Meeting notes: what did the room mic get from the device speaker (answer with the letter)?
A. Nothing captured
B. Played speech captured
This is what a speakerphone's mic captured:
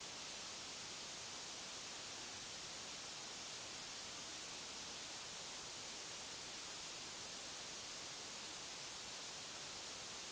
A